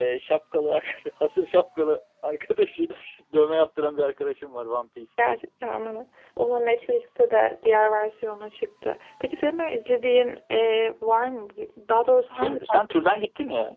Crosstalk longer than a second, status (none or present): present